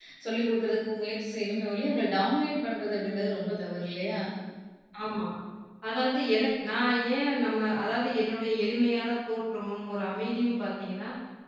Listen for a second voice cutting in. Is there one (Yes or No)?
No